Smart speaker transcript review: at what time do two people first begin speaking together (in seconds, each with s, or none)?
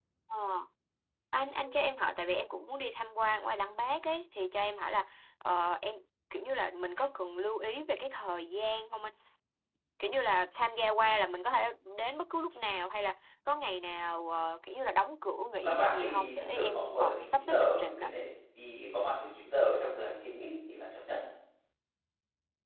15.6 s